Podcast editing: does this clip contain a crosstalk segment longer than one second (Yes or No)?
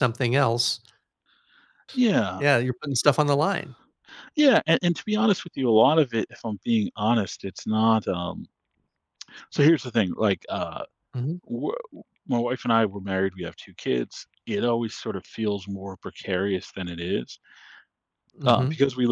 No